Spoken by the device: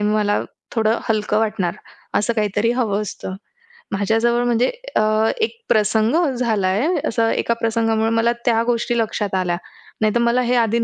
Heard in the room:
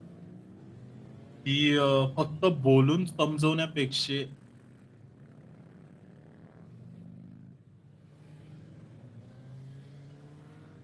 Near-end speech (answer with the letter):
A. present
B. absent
A